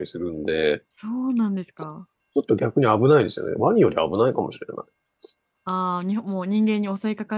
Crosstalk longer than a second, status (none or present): none